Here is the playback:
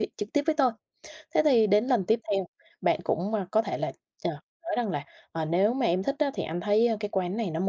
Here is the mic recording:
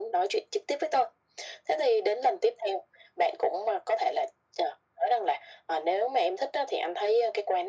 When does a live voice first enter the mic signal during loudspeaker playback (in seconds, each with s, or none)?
none